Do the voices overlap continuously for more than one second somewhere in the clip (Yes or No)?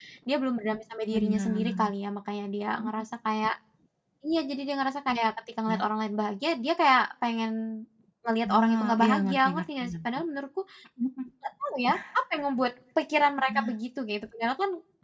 Yes